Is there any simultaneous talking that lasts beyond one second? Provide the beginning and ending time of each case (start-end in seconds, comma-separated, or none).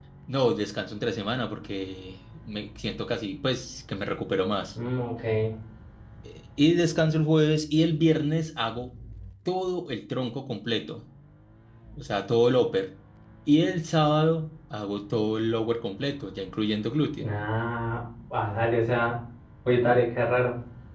none